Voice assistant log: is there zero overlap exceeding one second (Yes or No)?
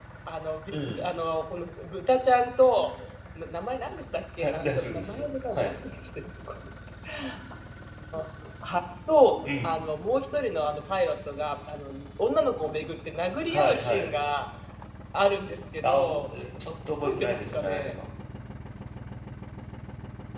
No